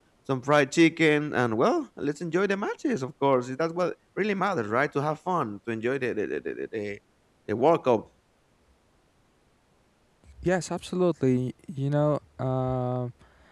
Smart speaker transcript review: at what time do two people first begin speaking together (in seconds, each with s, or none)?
none